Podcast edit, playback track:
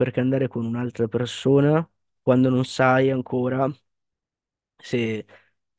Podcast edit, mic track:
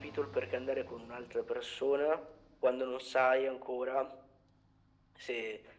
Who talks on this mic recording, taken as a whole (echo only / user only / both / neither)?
echo only